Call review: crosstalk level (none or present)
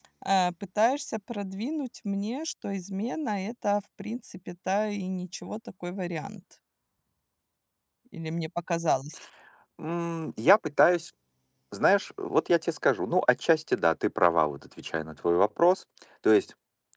none